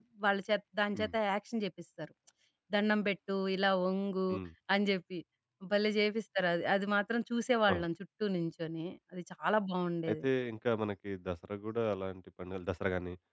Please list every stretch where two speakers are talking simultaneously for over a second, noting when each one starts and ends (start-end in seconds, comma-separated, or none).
none